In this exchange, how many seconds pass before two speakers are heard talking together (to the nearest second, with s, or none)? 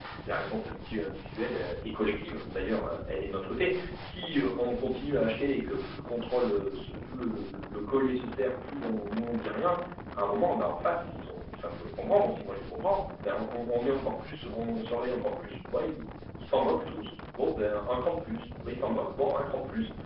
none